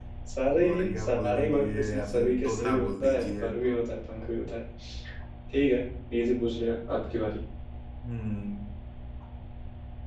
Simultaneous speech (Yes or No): Yes